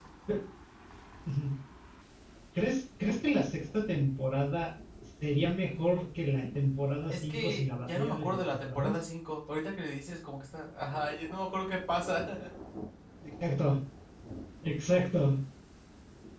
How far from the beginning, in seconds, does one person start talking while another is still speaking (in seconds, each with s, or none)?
7.1 s